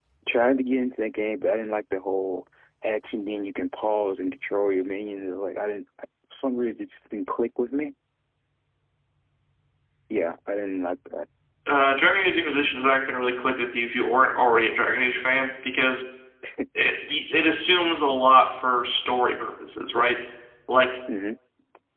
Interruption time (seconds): none

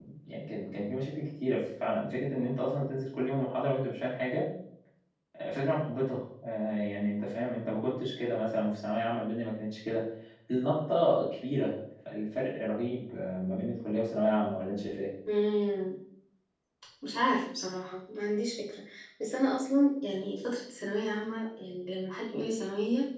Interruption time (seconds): none

